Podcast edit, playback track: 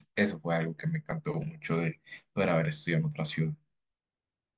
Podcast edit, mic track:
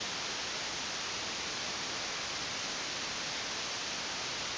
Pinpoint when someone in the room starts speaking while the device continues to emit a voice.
none

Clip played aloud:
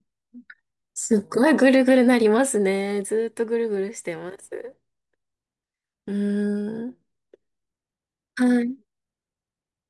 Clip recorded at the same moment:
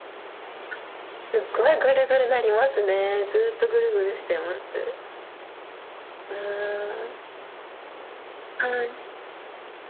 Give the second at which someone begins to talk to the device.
none

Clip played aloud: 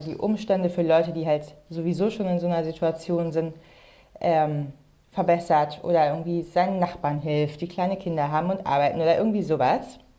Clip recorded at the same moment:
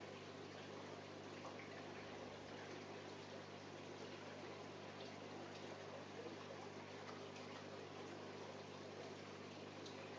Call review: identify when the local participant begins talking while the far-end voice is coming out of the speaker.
none

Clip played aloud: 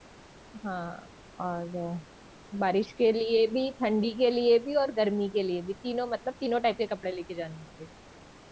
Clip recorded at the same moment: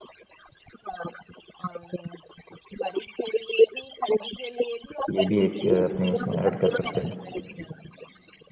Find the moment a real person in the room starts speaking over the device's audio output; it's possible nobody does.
5.1 s

